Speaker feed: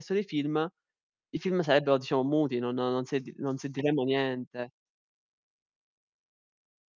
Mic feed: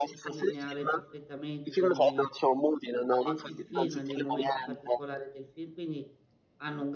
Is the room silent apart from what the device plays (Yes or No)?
No